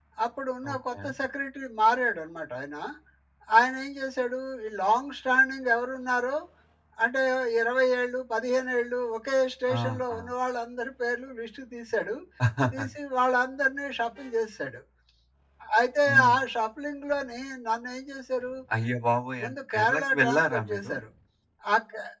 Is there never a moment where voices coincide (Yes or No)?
No